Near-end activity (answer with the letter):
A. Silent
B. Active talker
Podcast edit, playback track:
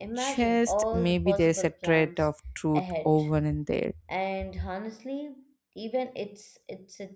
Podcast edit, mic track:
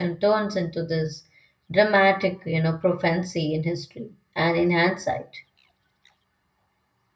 B